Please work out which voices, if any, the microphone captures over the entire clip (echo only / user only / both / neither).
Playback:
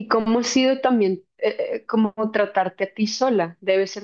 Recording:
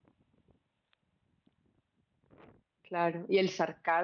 user only